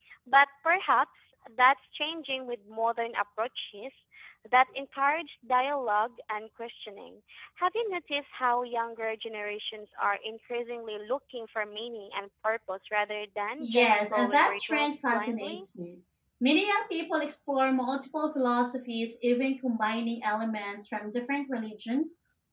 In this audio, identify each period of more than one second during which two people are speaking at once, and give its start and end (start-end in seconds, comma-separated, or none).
13.6-15.6